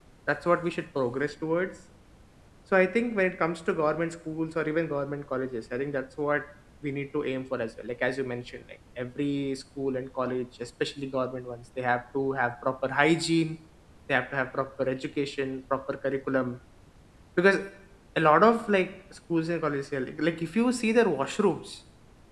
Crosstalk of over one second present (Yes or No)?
No